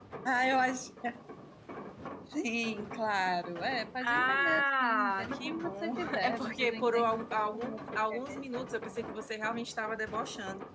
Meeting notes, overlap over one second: present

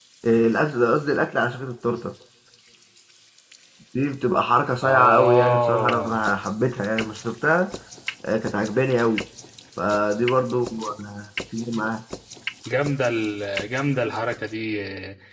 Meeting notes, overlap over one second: present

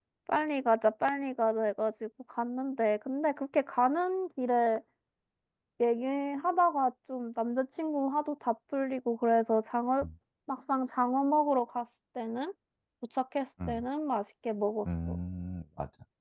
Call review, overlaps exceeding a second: none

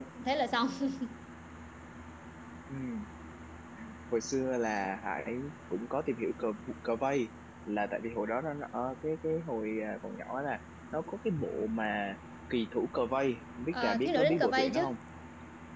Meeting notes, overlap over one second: present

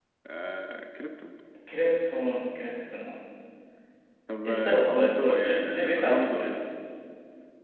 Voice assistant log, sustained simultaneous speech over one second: present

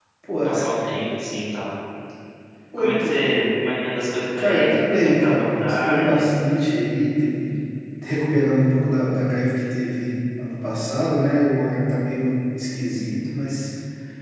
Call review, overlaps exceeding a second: present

